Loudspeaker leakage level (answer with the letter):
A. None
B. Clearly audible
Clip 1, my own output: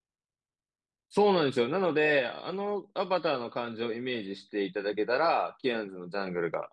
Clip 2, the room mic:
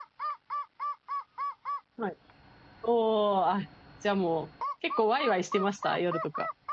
A